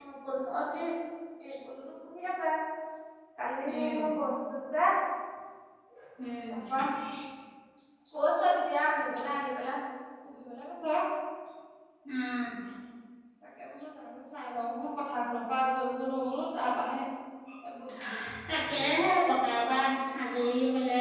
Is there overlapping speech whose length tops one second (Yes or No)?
No